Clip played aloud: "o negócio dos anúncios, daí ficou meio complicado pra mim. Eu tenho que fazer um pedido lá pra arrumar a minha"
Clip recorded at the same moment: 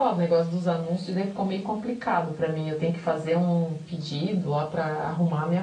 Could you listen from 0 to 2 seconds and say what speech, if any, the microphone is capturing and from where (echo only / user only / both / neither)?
echo only